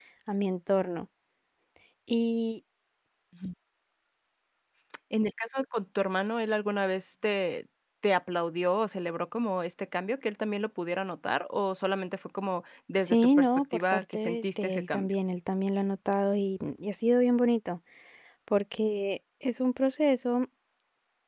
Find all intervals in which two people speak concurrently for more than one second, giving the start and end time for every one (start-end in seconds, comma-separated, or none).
13.0-15.1